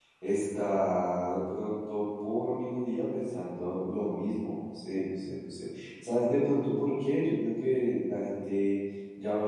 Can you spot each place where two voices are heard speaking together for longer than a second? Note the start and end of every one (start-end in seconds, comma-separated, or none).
none